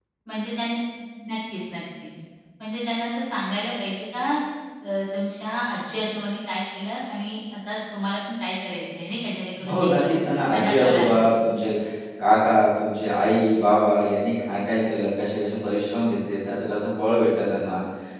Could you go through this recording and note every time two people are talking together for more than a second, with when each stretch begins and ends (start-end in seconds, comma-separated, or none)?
9.6-11.1